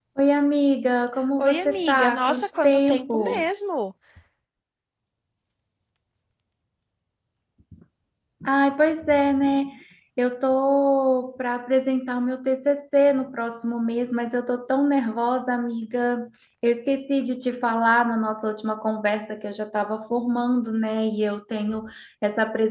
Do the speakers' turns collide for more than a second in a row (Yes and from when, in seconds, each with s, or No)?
Yes, from 1.4 s